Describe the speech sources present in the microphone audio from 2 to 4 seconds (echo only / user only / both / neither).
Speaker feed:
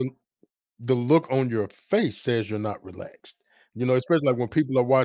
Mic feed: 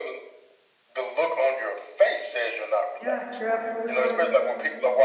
both